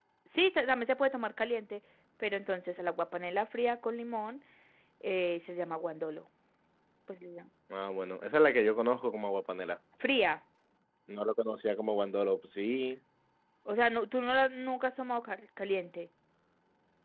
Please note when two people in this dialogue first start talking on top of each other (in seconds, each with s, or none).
none